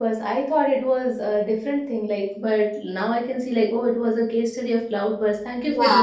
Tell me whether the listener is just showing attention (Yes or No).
No